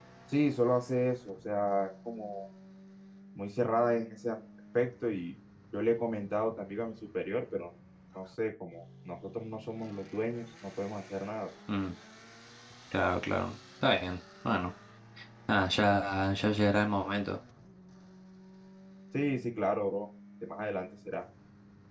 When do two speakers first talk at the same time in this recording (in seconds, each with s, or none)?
none